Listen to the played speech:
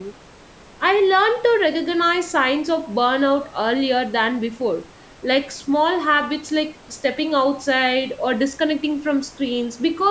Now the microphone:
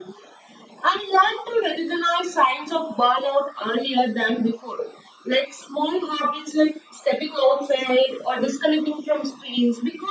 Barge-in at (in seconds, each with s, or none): none